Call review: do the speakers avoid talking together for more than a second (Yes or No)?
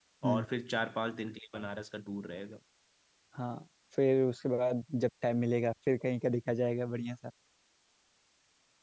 Yes